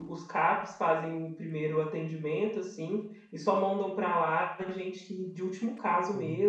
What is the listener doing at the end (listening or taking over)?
taking over